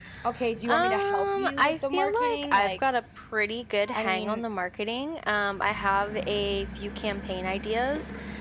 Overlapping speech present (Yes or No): Yes